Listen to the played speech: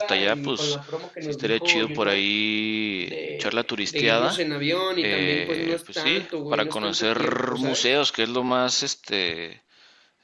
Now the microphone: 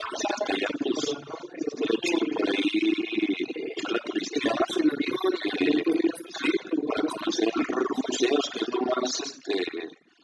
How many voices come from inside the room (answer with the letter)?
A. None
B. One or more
A